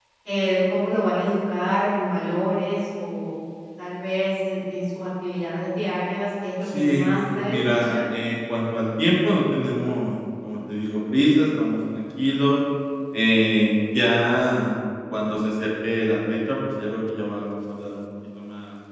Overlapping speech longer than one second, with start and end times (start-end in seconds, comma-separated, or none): 6.6-7.9